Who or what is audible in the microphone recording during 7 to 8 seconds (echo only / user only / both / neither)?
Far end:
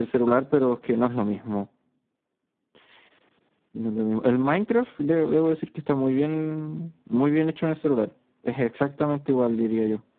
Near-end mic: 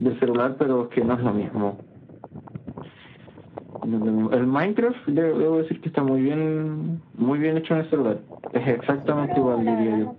echo only